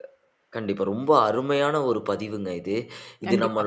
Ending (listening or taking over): listening